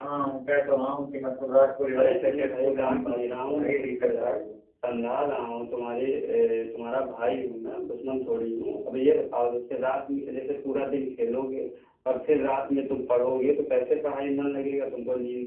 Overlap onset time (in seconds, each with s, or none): 1.9 s